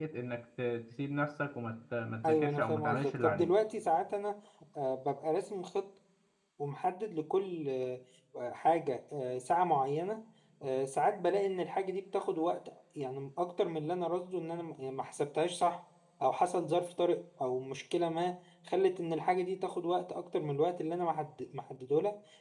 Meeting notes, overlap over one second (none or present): present